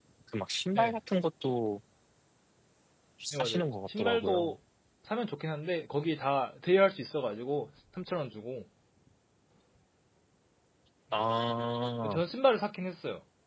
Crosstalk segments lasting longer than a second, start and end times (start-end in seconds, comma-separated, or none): 3.3-4.5